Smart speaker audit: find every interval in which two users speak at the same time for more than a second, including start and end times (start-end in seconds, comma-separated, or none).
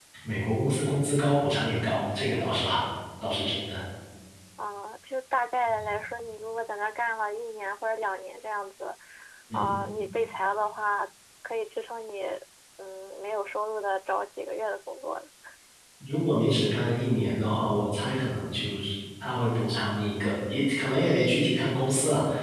none